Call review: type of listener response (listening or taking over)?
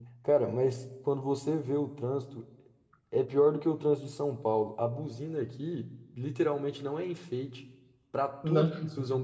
listening